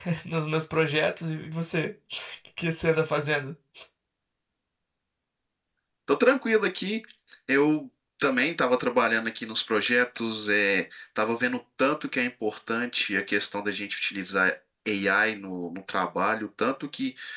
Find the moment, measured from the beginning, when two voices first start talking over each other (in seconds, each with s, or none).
none